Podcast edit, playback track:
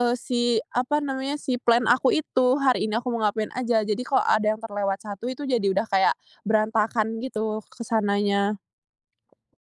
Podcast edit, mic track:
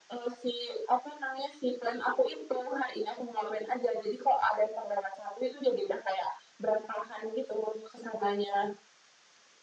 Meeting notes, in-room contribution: none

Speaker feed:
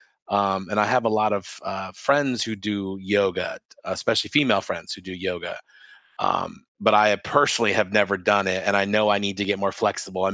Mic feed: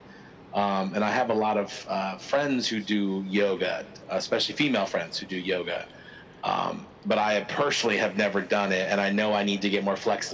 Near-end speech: none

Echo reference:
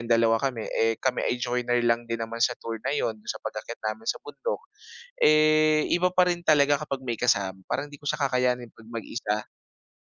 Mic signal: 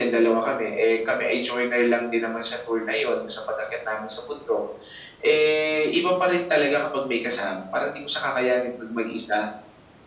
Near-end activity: none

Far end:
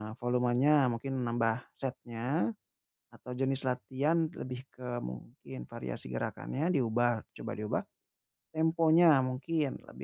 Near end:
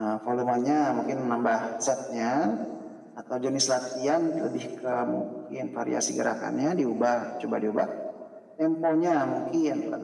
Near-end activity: none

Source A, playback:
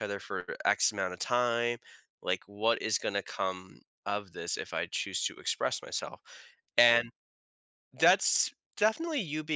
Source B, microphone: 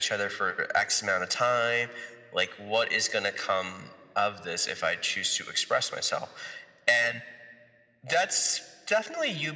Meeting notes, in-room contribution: none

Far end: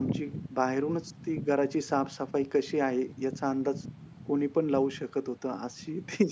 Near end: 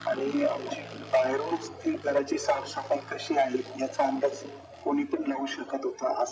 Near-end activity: none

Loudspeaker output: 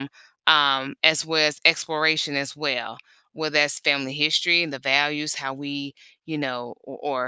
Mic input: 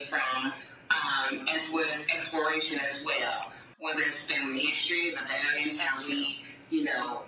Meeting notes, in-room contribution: present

